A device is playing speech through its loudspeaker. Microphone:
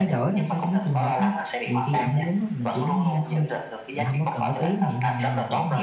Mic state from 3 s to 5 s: both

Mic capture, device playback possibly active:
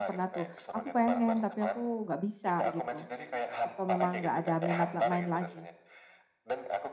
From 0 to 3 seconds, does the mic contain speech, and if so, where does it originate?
both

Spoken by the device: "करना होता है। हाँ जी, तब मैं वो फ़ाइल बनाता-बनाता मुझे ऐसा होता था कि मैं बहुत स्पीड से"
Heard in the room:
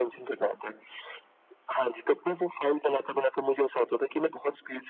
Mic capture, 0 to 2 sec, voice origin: echo only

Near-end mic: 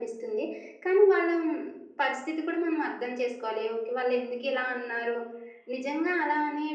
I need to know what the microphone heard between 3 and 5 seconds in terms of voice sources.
echo only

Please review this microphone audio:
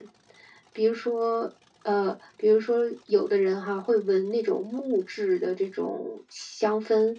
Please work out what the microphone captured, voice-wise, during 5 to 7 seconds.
echo only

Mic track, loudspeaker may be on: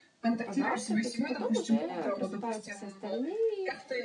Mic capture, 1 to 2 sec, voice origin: both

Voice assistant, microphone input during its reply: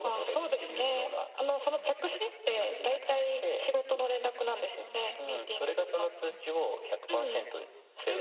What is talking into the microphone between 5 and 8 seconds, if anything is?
echo only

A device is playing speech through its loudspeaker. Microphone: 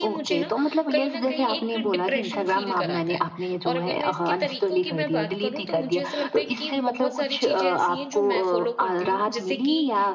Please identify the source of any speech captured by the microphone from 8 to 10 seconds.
both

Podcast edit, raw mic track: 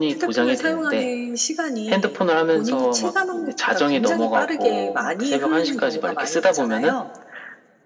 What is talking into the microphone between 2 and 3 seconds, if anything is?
echo only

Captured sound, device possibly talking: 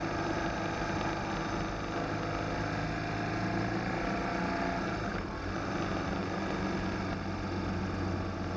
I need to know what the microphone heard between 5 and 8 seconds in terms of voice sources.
neither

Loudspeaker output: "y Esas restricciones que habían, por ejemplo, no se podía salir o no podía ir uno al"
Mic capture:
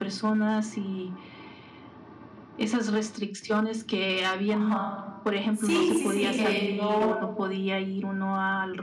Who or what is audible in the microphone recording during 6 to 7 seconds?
both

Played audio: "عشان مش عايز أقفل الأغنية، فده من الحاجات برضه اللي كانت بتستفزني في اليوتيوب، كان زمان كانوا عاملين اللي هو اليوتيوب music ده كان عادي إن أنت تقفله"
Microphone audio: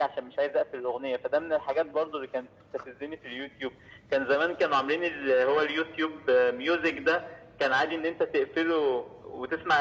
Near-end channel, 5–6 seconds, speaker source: echo only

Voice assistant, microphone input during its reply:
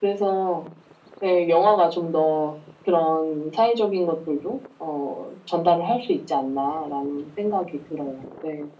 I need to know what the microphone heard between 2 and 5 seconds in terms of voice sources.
echo only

